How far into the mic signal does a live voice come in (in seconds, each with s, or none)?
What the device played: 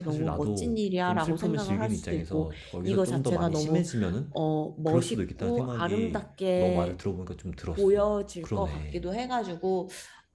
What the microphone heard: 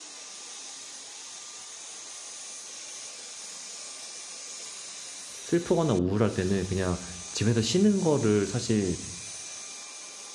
5.4 s